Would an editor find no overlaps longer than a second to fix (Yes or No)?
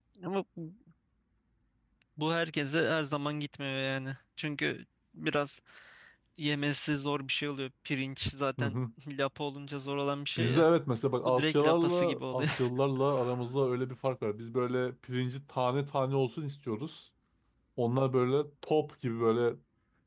No